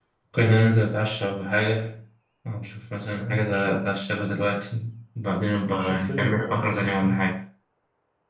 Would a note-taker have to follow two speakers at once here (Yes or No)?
Yes